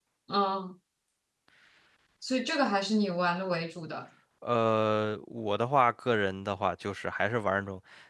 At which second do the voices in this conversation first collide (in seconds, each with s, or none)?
none